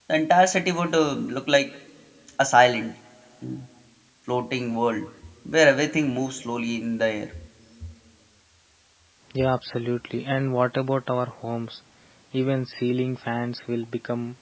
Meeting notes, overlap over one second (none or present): none